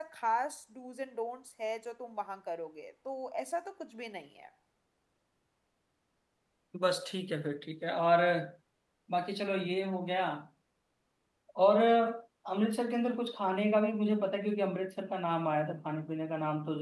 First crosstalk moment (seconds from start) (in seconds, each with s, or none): none